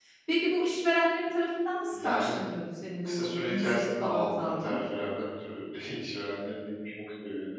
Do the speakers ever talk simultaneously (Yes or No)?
Yes